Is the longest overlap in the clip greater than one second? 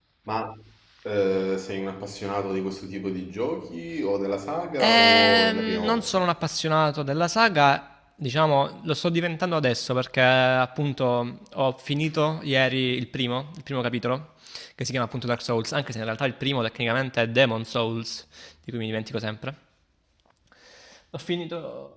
Yes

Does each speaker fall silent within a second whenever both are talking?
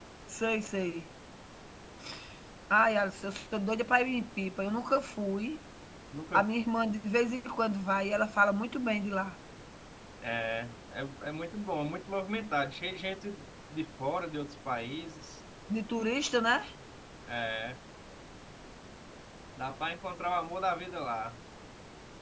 Yes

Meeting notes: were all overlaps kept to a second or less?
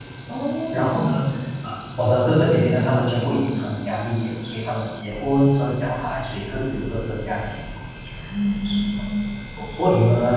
Yes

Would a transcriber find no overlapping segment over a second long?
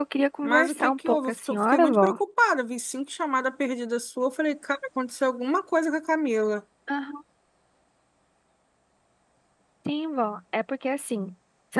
No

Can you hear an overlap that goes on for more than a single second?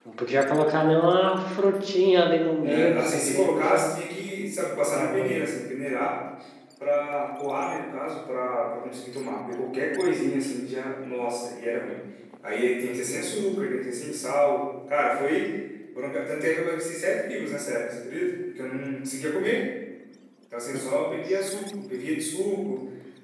Yes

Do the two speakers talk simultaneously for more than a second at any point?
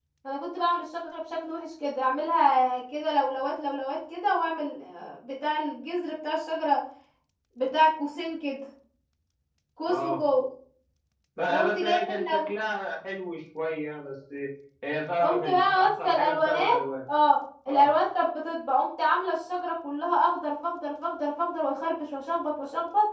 Yes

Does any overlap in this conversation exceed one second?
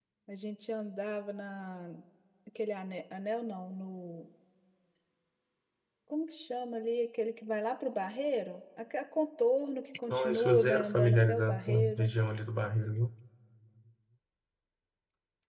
Yes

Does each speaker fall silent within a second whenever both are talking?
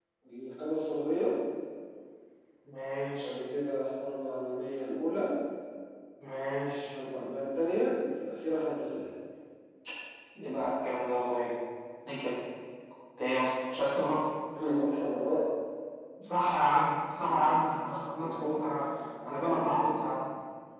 No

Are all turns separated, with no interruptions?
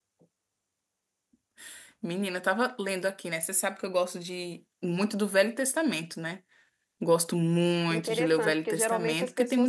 No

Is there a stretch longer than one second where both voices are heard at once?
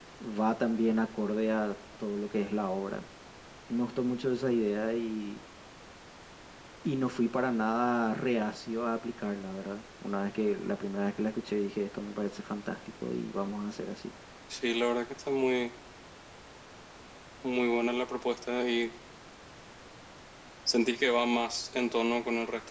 No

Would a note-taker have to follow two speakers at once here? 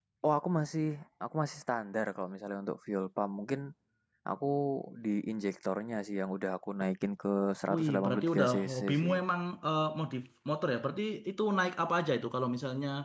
Yes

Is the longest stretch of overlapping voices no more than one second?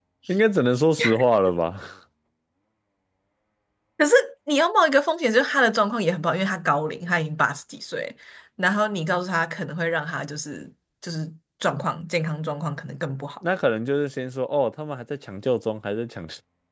Yes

